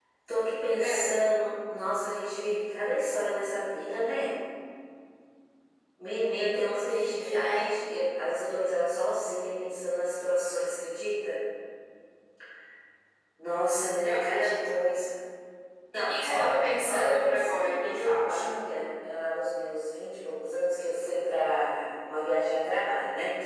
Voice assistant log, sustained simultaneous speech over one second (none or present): present